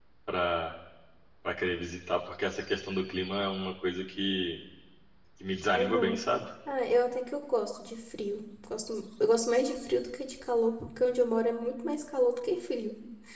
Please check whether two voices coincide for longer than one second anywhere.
No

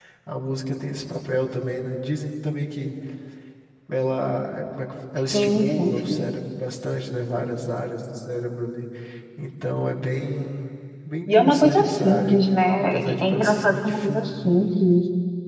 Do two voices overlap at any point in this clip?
Yes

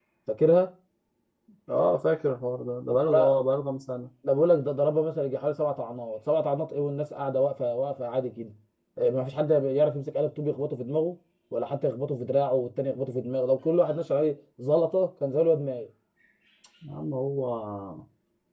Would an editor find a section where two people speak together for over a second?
No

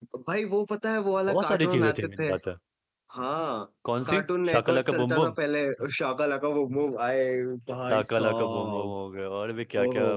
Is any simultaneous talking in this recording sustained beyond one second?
Yes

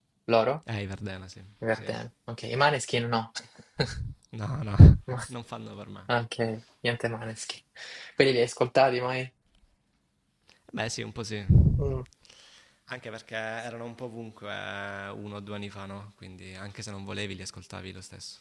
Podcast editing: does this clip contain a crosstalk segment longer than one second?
No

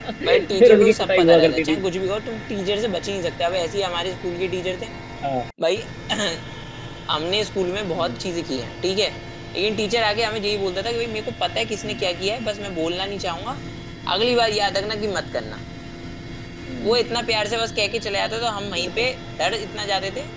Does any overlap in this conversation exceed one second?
Yes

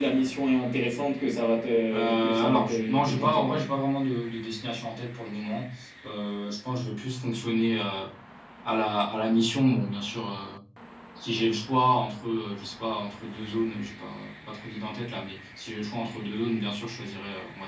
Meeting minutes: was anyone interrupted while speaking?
Yes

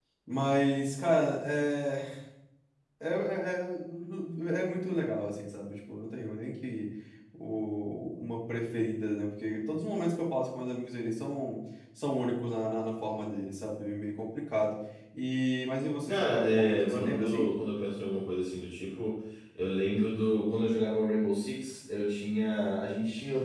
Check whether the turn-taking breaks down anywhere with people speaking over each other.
Yes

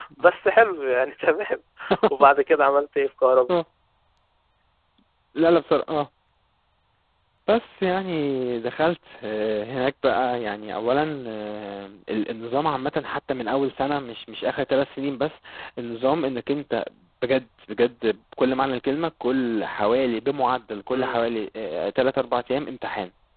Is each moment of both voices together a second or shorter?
Yes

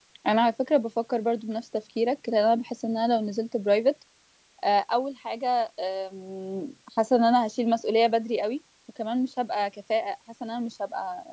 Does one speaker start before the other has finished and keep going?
No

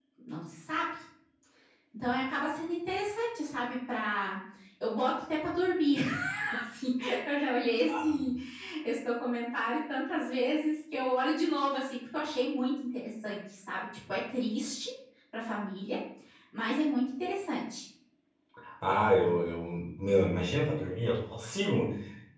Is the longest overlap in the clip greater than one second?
No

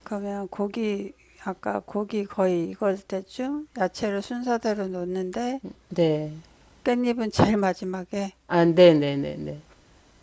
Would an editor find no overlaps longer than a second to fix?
Yes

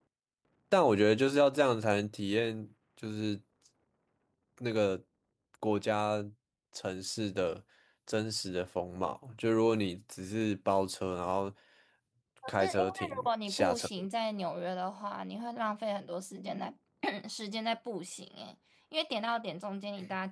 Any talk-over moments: Yes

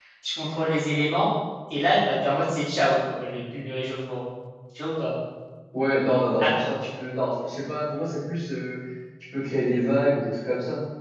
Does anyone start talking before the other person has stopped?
No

